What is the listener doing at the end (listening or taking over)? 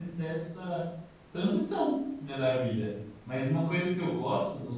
listening